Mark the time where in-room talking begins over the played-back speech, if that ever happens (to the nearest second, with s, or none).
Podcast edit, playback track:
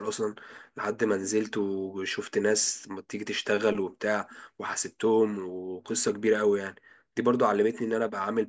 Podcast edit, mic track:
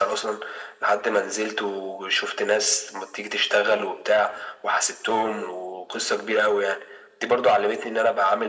none